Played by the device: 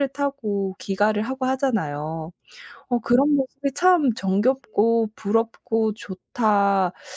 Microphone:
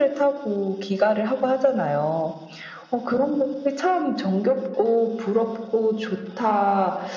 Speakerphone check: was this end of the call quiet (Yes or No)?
Yes